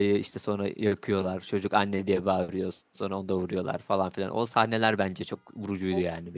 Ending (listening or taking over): taking over